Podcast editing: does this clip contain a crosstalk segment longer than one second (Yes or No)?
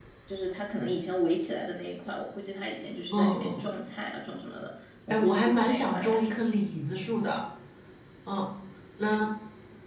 Yes